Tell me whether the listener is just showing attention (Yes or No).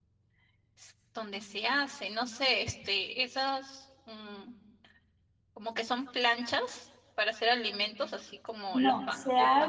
No